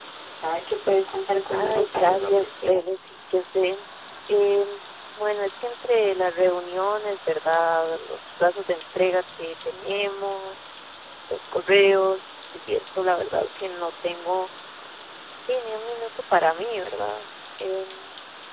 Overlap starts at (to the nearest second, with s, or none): 2 s